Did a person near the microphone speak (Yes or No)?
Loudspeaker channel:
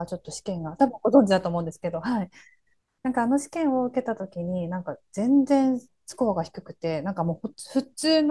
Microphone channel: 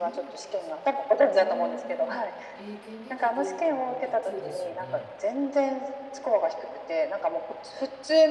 Yes